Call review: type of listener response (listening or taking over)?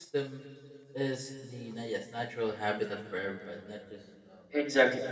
listening